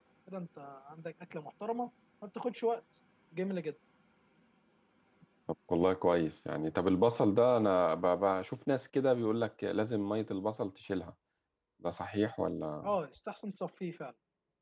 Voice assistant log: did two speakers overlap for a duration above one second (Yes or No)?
No